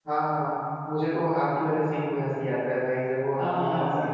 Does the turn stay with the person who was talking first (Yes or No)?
No